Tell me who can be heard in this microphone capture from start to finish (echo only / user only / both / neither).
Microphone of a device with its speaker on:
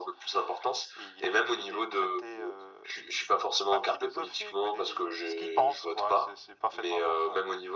echo only